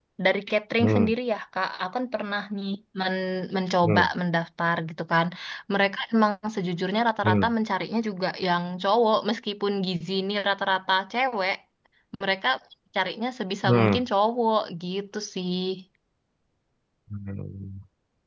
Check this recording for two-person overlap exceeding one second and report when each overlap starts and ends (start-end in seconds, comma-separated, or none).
none